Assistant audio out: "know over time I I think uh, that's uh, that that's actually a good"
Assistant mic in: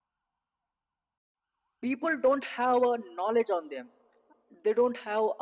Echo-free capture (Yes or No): Yes